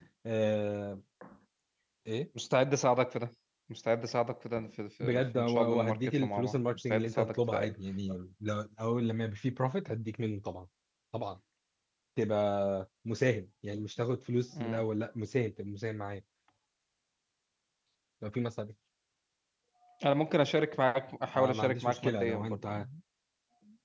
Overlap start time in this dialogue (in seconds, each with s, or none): 5.0 s